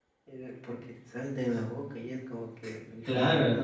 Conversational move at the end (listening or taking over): taking over